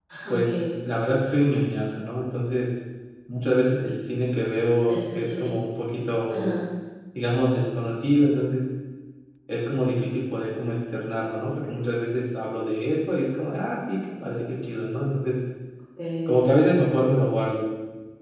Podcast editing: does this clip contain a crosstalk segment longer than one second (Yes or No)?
No